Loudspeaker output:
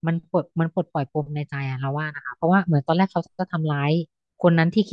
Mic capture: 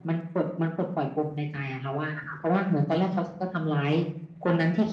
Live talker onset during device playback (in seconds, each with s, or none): none